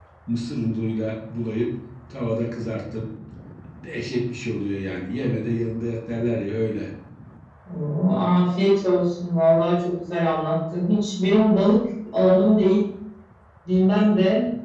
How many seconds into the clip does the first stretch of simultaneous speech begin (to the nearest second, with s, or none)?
none